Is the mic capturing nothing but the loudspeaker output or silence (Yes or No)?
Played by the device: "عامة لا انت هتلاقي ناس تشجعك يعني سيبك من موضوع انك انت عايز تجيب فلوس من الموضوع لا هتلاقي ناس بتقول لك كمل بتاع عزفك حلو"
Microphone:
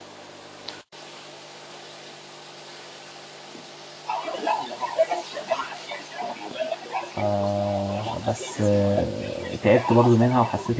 No